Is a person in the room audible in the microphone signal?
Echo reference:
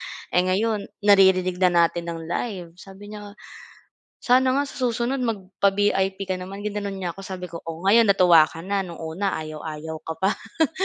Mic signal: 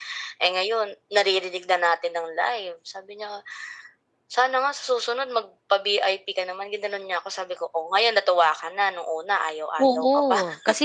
Yes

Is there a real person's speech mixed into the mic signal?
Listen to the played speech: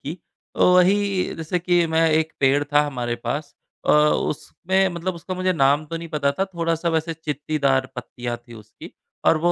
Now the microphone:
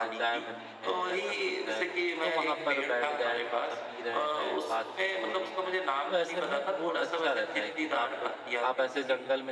Yes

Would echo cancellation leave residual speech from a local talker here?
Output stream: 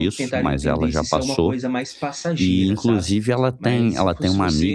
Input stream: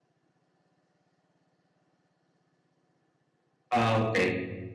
Yes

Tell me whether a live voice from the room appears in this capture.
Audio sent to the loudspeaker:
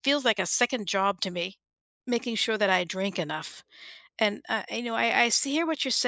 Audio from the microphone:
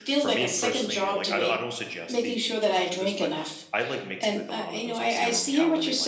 Yes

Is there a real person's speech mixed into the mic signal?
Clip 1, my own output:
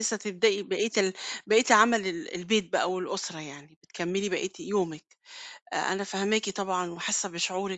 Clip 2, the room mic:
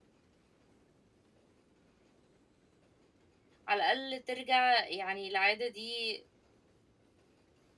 Yes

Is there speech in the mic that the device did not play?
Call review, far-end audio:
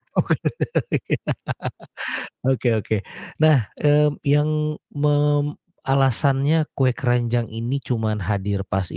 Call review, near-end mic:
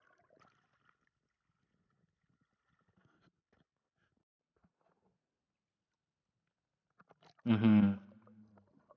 Yes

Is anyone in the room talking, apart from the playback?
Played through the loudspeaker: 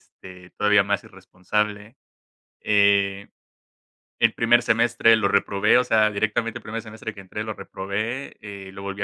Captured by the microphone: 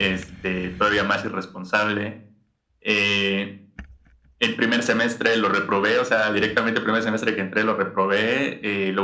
No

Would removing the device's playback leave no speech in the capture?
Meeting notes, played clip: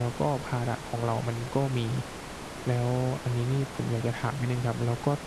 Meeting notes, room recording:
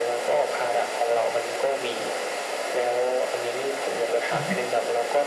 No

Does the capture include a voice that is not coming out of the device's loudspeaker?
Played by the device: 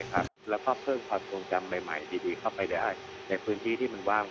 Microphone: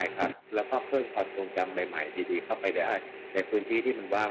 No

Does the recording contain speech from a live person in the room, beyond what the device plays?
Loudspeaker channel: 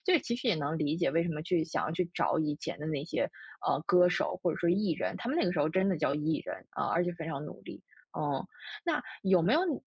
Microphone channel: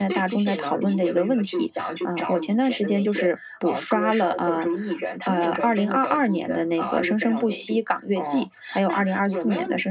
Yes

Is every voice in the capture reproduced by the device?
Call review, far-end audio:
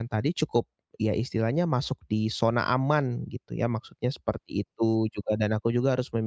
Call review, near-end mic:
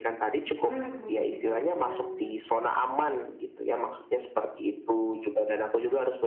No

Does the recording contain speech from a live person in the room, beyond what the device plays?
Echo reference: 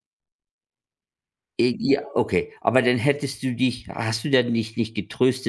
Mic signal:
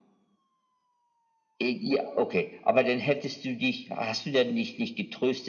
No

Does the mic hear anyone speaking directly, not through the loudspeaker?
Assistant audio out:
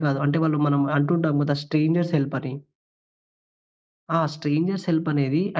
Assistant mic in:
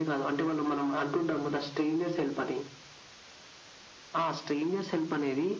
No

